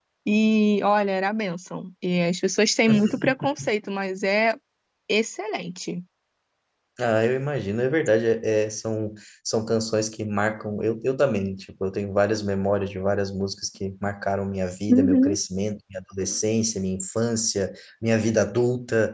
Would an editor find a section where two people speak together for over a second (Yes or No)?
No